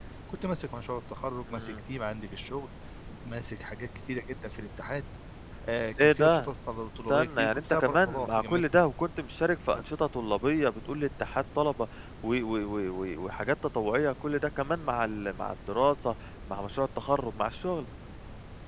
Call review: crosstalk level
present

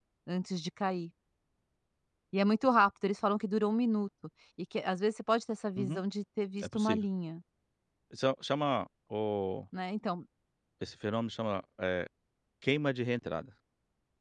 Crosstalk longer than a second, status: none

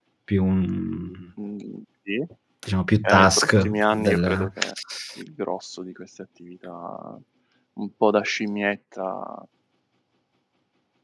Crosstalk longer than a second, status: present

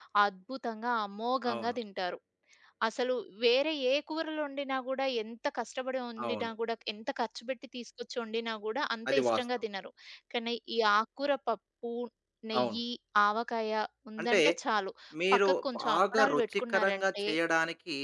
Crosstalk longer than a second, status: present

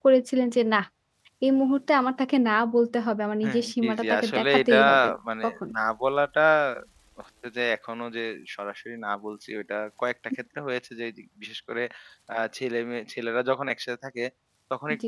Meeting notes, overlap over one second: present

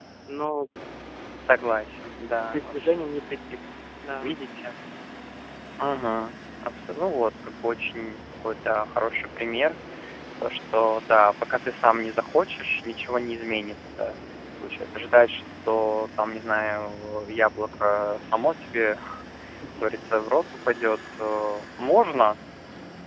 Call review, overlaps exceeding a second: none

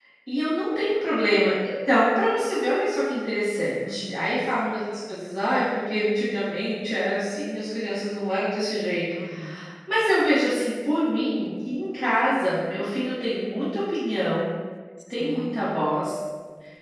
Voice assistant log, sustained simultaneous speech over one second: none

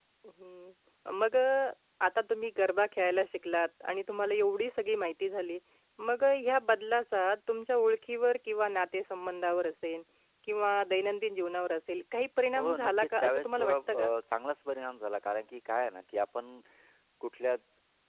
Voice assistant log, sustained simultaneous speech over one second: present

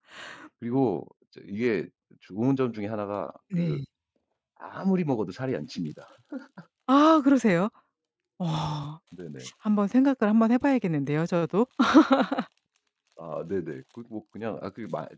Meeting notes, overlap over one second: none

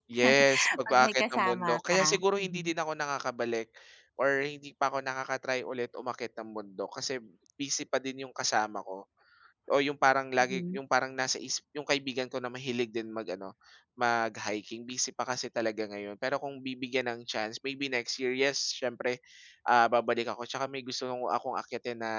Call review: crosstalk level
present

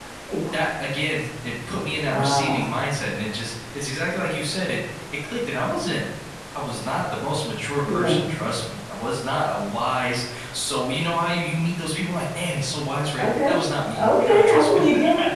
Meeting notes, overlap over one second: present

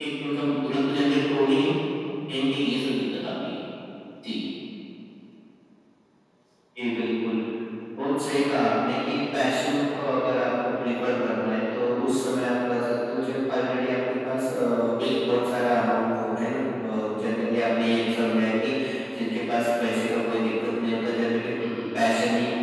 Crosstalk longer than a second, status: none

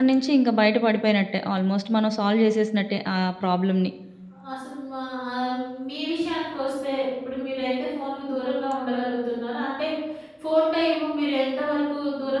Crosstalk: none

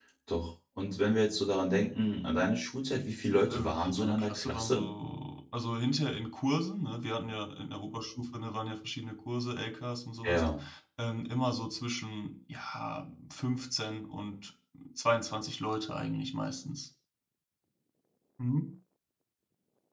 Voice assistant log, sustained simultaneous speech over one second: present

